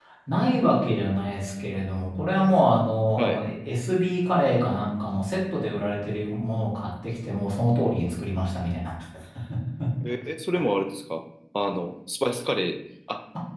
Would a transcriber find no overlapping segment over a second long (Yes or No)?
Yes